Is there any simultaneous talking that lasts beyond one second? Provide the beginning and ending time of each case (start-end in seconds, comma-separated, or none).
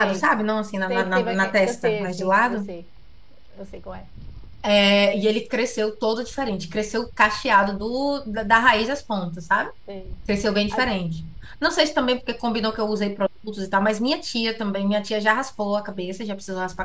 0.9-2.7